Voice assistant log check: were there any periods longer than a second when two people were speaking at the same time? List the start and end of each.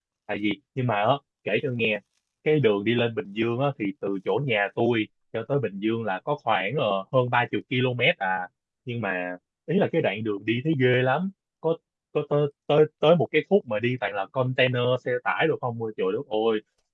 none

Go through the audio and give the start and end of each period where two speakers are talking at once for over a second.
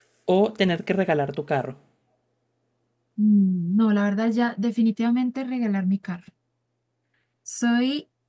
none

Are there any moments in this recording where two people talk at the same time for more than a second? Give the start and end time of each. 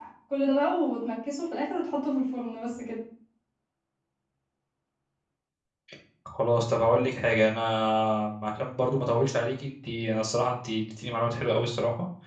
none

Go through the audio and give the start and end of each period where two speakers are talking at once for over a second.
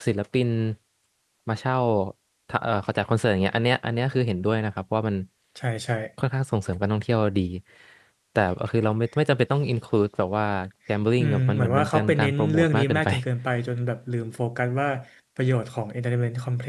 11.2-13.1

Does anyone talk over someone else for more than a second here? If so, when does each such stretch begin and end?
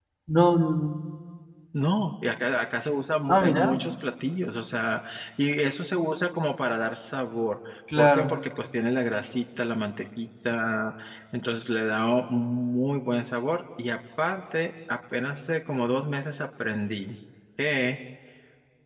none

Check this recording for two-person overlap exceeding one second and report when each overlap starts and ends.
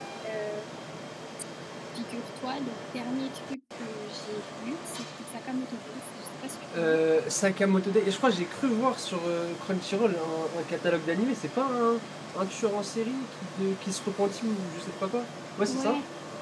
none

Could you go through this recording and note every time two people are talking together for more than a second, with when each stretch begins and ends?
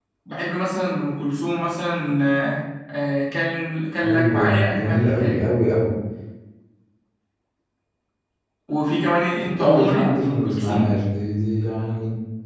4.0-5.4, 9.6-10.9

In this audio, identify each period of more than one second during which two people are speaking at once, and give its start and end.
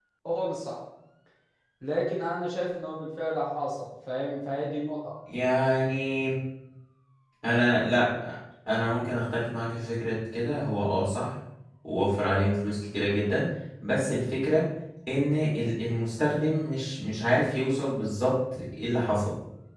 none

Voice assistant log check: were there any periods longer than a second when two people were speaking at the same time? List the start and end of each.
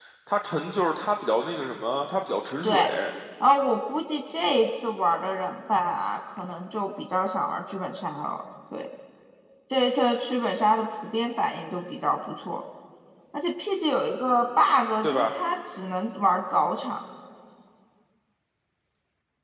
none

